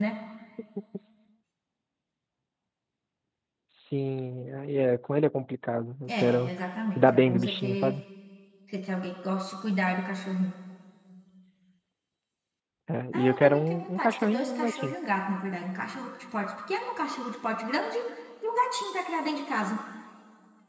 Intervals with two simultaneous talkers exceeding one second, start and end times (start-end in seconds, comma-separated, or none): 6.1-8.0, 13.1-14.9